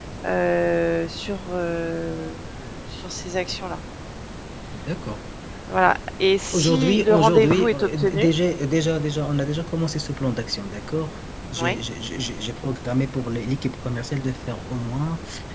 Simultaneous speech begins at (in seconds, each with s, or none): 6.5 s